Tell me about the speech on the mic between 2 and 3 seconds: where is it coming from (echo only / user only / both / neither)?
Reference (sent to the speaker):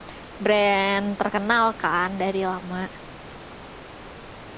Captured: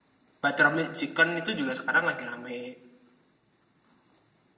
user only